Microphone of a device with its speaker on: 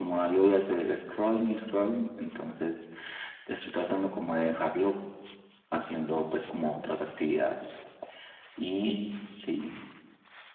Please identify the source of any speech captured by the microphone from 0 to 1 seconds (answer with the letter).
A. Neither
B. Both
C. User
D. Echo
D